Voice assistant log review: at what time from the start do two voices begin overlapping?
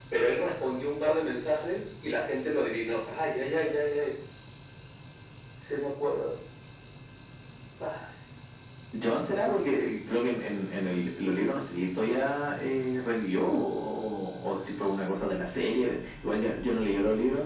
none

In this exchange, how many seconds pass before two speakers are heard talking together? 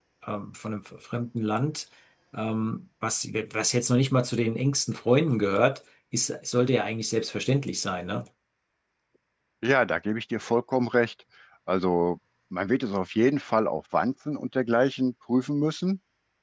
none

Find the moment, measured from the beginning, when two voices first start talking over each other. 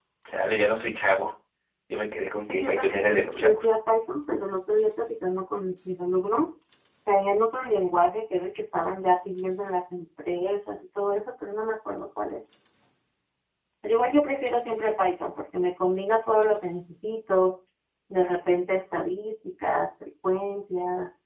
2 s

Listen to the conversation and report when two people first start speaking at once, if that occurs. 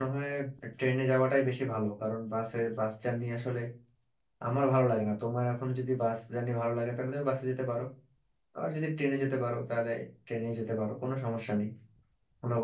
none

